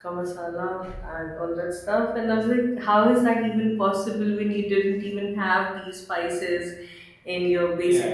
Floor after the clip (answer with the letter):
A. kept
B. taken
B